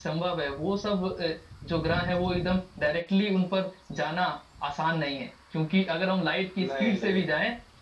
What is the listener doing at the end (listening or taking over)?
listening